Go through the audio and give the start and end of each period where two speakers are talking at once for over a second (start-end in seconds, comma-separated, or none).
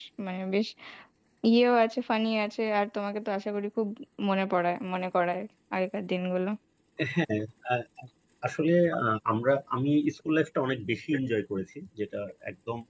none